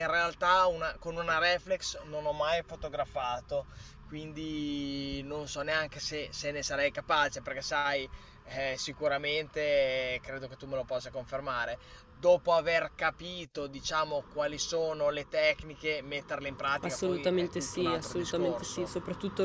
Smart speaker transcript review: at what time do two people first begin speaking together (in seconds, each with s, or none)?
16.8 s